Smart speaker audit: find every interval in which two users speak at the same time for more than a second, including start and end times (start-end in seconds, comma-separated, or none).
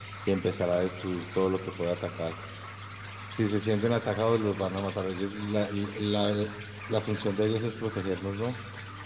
none